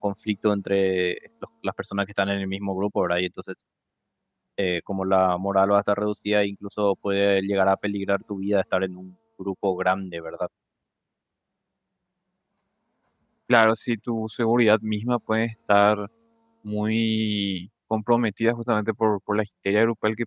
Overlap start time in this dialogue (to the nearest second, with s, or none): none